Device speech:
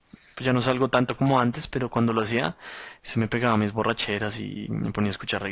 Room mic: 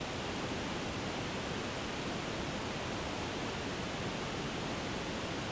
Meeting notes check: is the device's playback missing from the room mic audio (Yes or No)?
Yes